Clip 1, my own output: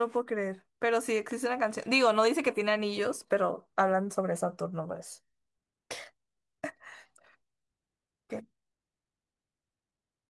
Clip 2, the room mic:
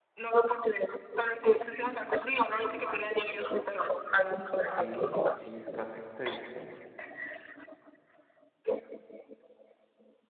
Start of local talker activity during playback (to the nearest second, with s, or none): 5 s